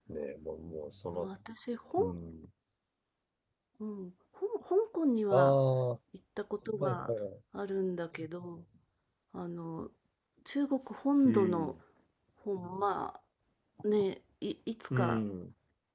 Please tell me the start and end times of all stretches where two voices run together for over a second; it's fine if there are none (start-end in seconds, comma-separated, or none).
none